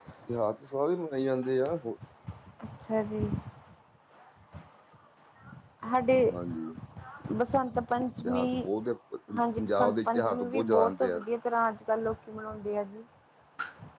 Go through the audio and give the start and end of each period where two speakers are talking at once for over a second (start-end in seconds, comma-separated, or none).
9.4-11.2